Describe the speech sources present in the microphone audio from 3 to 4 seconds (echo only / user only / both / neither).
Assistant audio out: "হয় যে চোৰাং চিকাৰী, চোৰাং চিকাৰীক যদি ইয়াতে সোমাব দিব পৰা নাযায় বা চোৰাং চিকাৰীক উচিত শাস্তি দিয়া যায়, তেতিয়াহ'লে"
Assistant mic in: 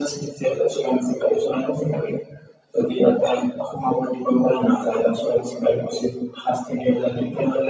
echo only